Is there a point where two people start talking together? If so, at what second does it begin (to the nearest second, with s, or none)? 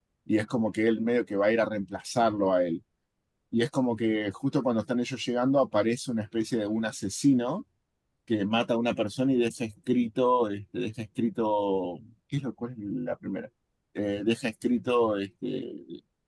none